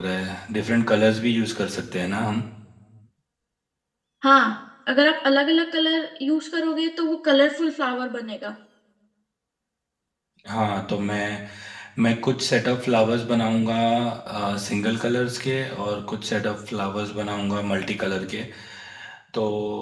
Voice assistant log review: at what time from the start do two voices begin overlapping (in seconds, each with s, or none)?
none